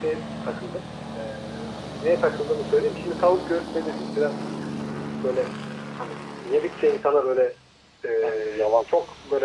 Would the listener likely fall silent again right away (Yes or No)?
Yes